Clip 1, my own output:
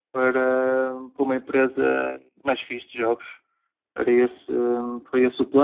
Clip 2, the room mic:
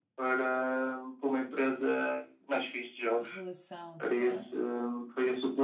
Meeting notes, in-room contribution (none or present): present